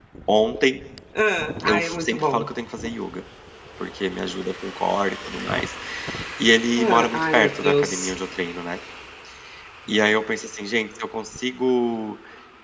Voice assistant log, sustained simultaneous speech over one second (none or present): present